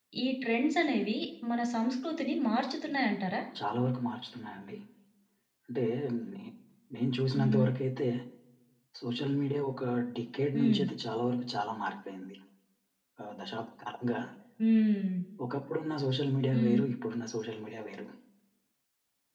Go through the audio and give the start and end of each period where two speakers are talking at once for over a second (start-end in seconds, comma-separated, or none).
none